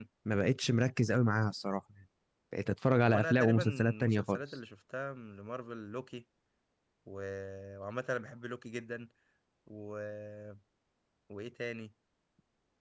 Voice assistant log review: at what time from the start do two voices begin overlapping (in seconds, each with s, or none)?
3.0 s